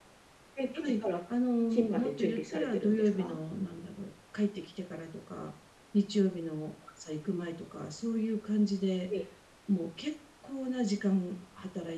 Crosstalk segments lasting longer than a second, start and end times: 1.7-3.4

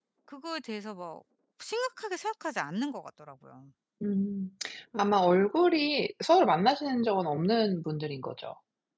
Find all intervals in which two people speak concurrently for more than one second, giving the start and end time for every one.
none

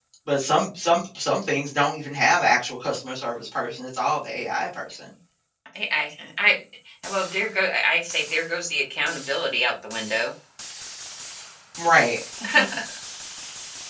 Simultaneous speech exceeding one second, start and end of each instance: none

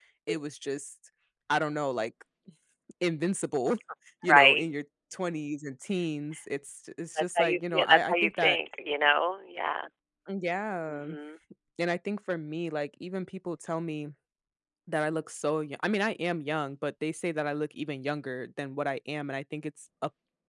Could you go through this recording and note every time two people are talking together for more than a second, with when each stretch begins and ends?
7.2-8.6

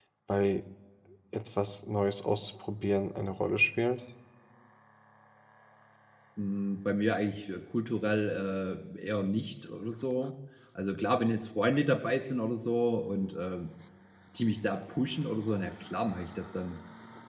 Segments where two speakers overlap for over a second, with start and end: none

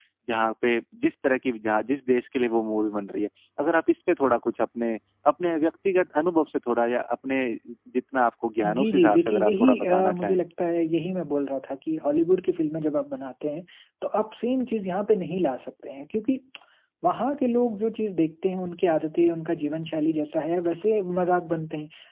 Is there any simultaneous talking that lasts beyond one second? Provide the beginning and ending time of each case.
8.8-10.4

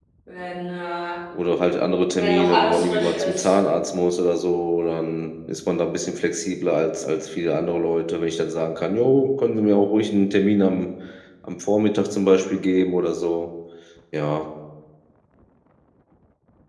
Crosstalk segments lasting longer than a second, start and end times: 2.1-3.5

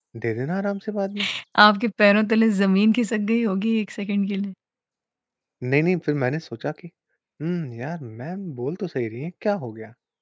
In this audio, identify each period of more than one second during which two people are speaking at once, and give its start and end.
none

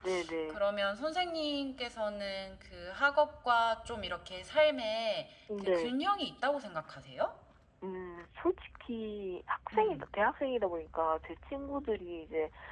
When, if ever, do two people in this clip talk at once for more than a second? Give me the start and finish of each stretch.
none

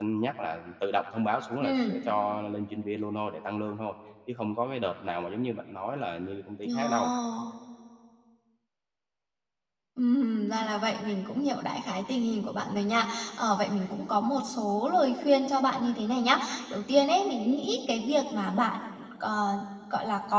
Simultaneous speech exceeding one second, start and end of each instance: none

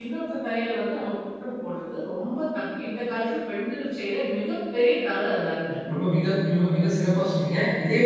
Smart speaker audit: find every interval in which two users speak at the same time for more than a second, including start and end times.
none

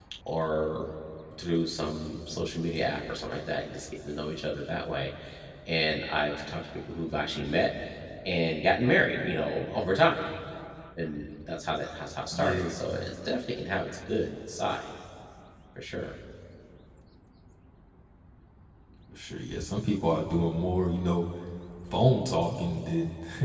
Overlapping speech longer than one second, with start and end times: none

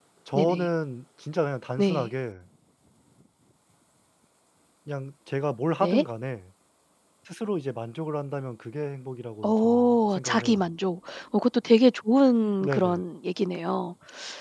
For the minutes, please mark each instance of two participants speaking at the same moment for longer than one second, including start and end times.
9.4-10.6

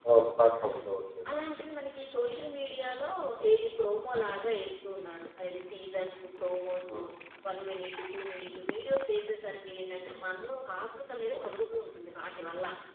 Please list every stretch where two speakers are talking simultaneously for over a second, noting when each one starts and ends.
none

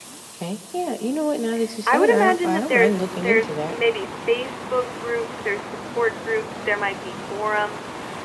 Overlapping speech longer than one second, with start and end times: 1.9-3.7

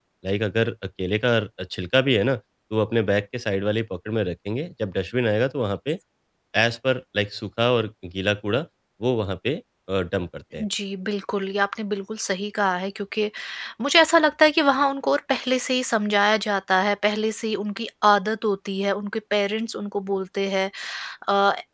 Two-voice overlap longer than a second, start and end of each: none

